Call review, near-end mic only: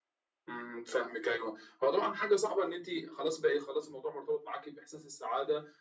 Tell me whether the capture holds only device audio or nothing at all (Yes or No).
Yes